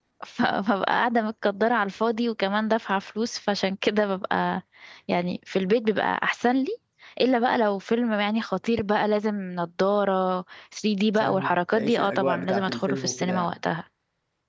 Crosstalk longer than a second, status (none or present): present